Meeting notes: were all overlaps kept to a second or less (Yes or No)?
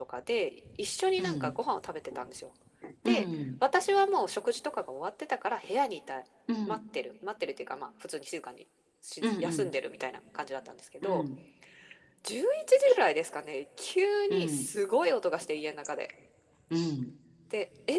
Yes